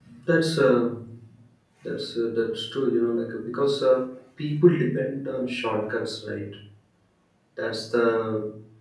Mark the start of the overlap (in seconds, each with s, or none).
none